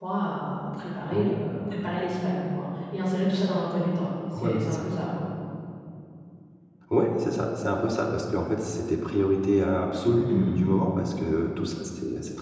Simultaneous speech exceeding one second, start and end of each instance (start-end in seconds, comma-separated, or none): none